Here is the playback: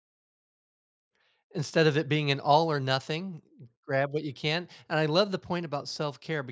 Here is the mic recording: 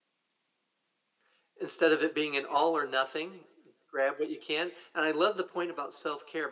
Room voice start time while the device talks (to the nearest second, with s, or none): none